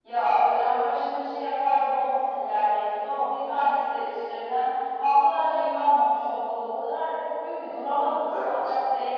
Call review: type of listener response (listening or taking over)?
listening